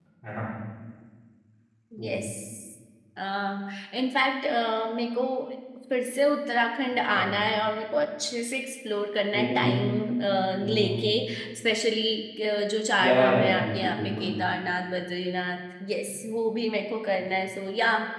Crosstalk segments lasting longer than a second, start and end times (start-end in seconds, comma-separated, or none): 13.0-14.3